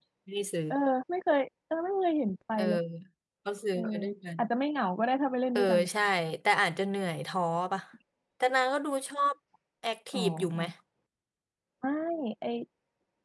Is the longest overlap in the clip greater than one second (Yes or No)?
No